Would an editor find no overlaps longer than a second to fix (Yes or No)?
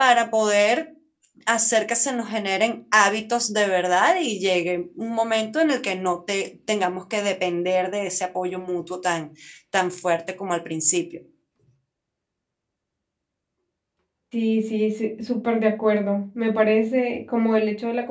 Yes